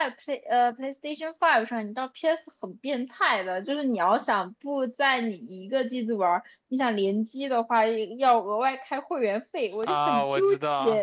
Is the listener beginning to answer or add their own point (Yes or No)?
Yes